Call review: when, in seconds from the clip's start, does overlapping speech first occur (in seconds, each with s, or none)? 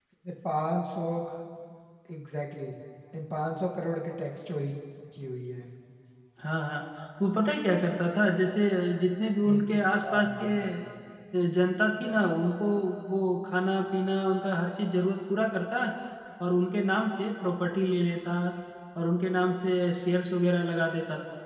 9.4 s